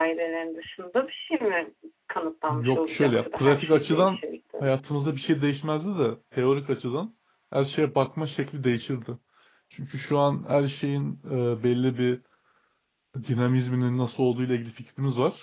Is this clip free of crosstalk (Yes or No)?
No